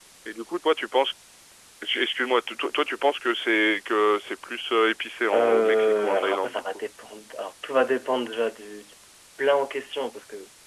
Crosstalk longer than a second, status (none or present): present